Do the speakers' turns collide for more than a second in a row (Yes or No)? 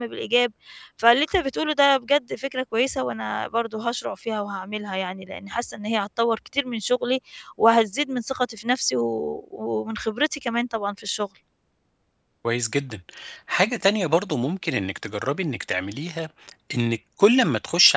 No